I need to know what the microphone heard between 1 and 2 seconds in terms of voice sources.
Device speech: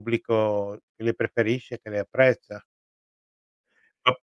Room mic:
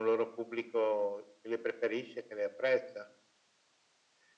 echo only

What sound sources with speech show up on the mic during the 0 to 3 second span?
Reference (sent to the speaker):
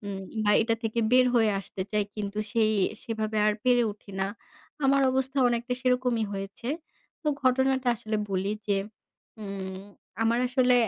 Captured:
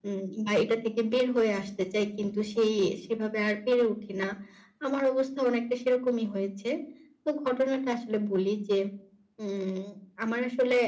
echo only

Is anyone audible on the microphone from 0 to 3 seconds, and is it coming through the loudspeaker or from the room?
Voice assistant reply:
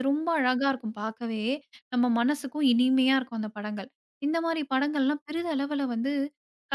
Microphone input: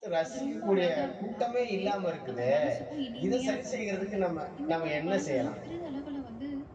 both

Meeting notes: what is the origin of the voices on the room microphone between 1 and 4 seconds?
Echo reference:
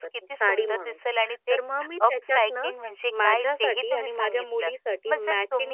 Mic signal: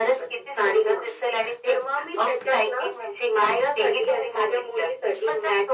echo only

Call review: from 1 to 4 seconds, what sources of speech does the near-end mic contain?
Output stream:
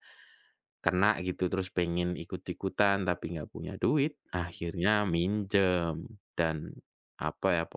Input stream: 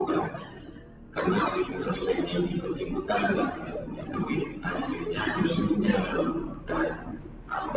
echo only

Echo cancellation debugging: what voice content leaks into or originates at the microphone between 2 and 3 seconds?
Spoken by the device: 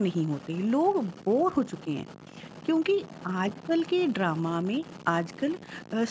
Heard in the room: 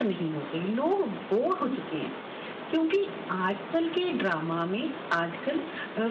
echo only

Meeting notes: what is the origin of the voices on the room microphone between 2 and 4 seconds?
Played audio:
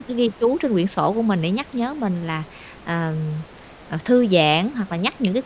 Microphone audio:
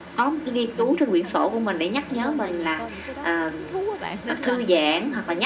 both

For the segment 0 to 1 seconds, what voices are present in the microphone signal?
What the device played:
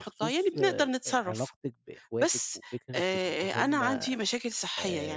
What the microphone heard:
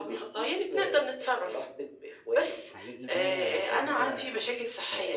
echo only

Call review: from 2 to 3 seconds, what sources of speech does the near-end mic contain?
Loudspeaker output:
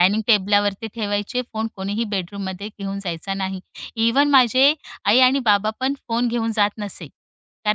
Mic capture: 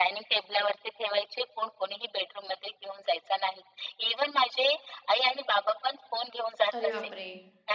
echo only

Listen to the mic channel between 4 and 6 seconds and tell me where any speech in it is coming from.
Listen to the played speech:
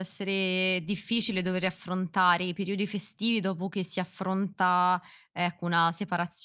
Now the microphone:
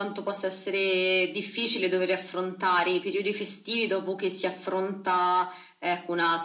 echo only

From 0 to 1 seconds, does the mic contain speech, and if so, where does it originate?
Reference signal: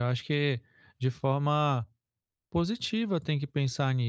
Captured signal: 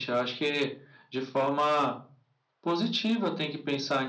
echo only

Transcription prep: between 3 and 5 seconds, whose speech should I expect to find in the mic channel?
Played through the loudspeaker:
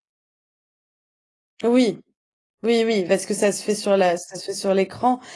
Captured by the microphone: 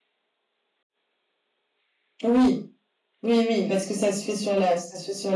echo only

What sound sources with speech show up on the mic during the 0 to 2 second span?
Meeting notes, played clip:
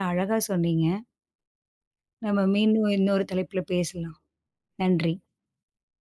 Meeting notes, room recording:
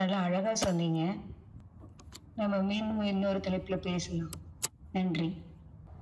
echo only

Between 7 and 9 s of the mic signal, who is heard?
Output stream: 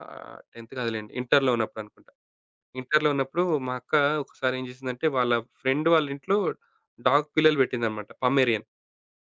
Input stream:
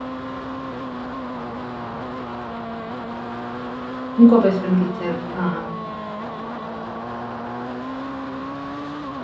neither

